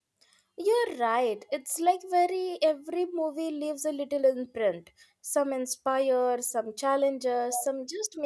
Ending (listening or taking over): listening